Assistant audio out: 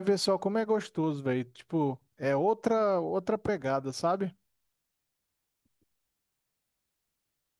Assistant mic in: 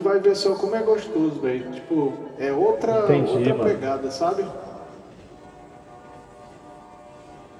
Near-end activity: present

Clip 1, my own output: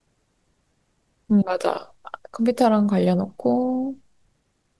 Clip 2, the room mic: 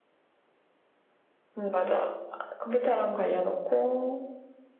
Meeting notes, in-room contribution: none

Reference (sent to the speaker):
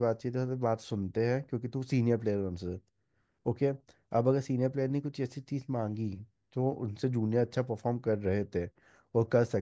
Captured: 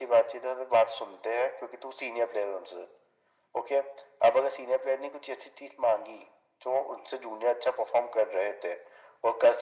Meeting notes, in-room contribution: none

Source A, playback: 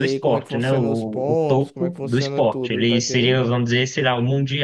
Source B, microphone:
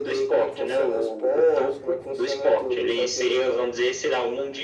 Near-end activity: none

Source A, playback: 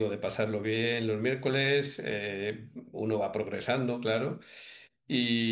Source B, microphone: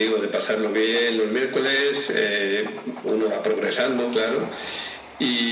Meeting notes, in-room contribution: none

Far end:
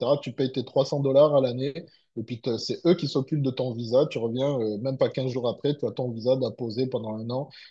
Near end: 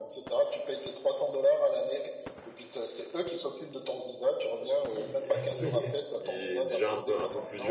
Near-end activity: present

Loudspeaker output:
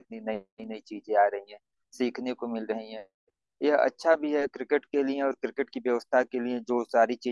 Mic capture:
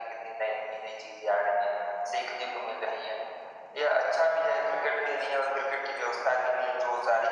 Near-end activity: none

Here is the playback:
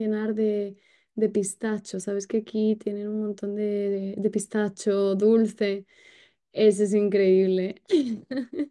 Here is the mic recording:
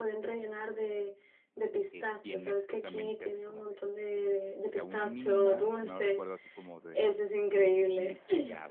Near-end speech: present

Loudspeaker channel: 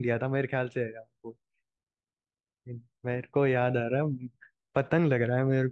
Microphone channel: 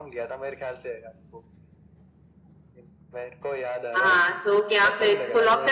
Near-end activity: present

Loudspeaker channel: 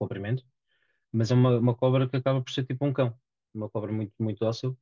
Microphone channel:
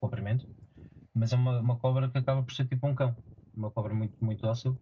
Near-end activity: none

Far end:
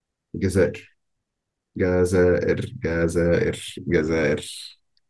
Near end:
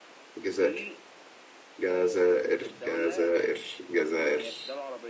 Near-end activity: present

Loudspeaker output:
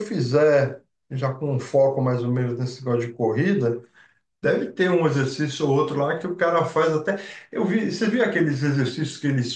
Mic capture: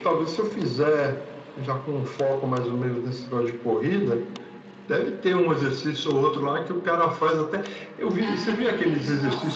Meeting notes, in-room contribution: present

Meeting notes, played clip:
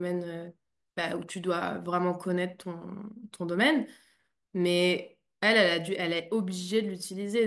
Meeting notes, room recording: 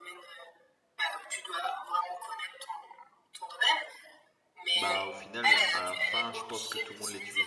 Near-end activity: present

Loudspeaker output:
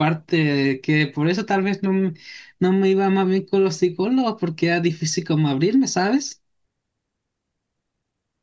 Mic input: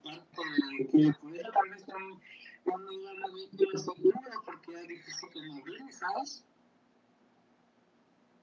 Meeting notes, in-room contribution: none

